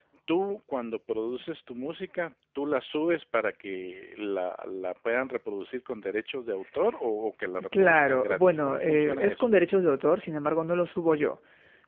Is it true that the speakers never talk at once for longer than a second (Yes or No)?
No